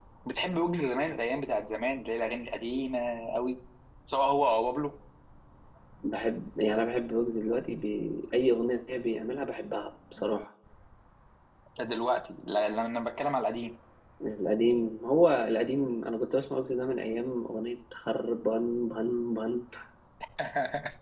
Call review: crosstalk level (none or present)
none